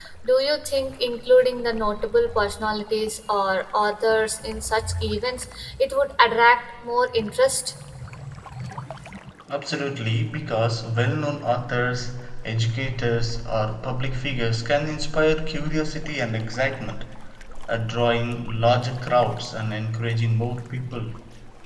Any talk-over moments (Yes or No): No